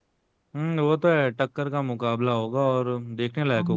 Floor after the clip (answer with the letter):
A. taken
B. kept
A